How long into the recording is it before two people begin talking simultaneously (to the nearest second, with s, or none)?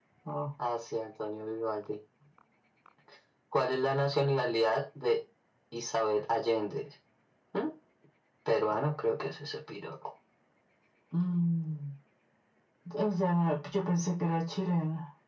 none